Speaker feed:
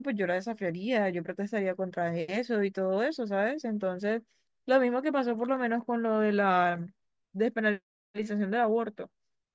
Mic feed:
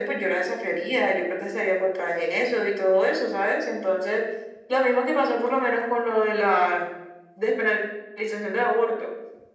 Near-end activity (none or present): none